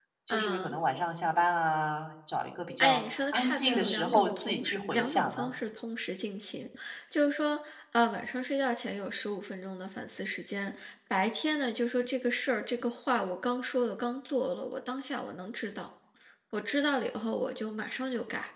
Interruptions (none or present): present